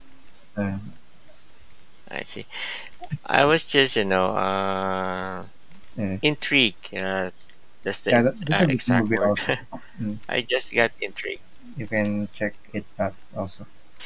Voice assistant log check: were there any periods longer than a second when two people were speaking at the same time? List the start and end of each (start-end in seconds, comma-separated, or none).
8.1-9.4